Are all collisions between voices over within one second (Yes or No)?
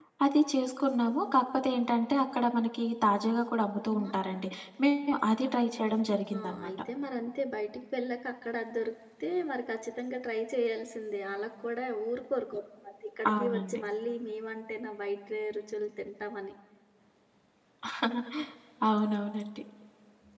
Yes